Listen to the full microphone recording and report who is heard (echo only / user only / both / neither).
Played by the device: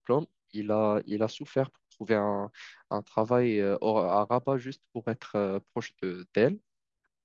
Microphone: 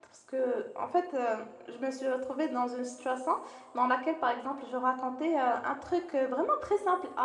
user only